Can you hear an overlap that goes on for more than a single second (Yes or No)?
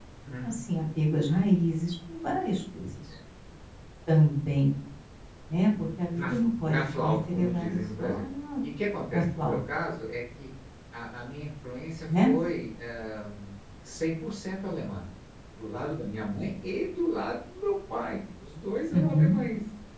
Yes